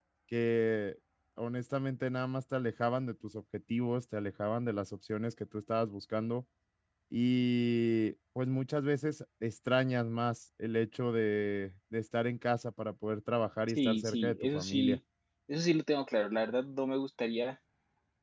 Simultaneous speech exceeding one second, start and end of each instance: 13.7-15.0

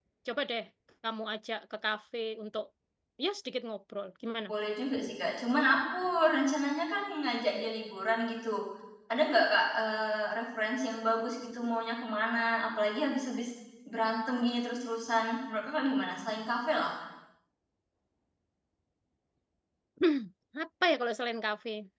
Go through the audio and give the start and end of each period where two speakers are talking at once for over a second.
none

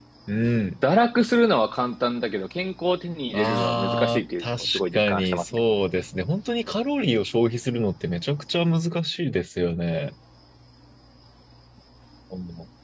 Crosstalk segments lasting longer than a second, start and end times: 3.3-5.6

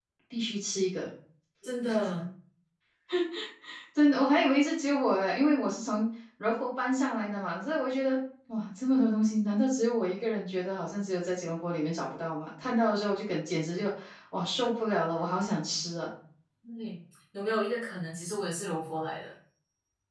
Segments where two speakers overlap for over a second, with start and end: none

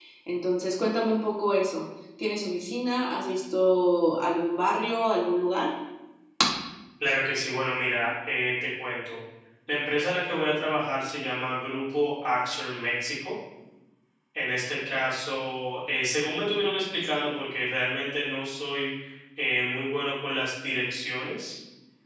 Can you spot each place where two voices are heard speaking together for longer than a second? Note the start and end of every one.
none

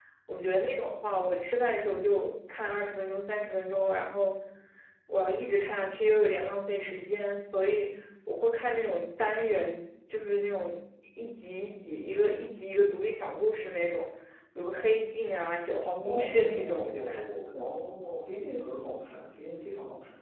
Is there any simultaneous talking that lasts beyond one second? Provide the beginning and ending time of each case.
16.0-17.2

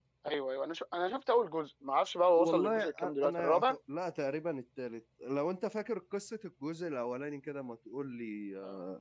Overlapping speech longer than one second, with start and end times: 2.4-3.8

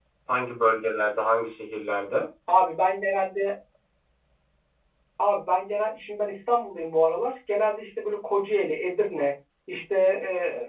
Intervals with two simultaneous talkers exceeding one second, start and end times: none

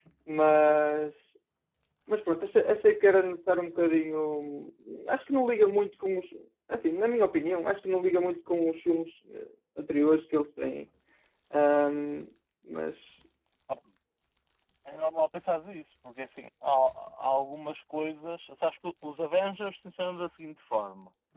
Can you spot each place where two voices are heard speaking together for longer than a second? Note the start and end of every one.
none

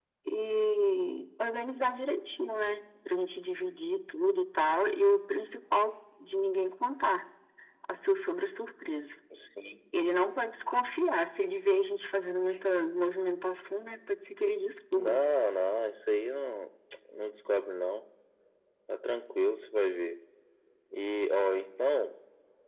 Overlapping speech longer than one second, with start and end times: none

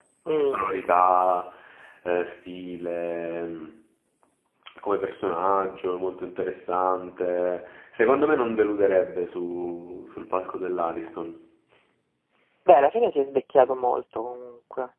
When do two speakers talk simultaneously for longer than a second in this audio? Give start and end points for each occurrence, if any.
none

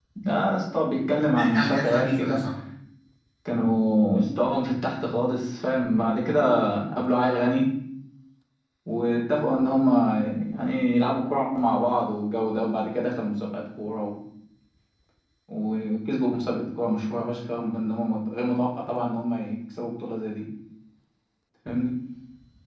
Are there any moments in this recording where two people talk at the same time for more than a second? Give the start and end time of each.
1.2-2.4

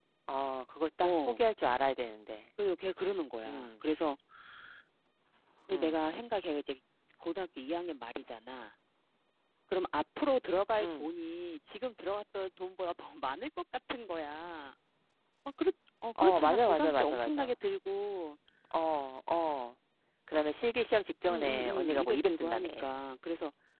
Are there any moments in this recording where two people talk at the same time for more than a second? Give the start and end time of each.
16.2-17.6, 21.3-22.7

